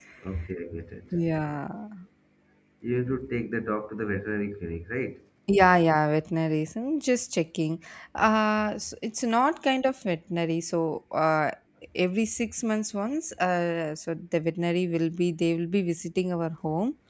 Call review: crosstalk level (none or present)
none